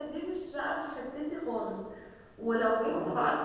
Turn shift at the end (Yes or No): No